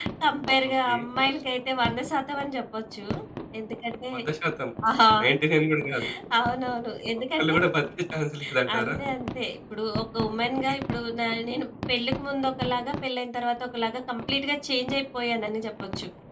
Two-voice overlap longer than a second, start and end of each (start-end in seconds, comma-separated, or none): none